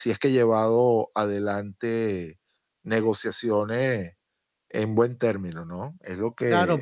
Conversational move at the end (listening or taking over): taking over